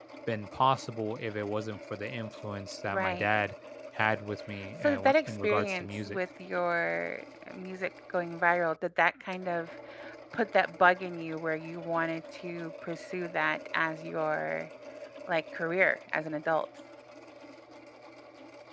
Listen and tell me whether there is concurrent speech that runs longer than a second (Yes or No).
Yes